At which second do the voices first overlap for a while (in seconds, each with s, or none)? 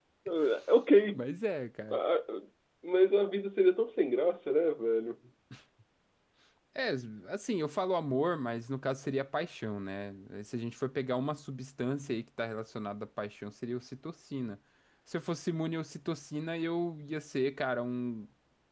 none